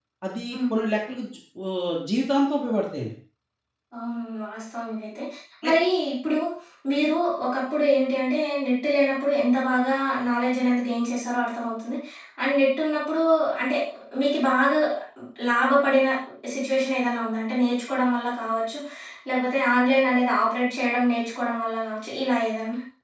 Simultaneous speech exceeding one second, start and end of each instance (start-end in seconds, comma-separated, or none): none